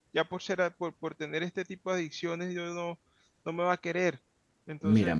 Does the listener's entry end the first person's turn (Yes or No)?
Yes